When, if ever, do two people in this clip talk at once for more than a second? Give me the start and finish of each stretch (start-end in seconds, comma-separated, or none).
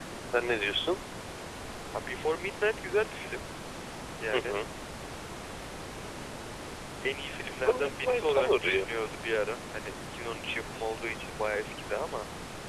7.5-8.9